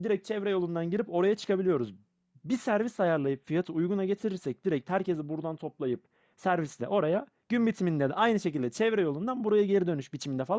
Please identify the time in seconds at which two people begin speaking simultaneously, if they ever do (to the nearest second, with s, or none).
none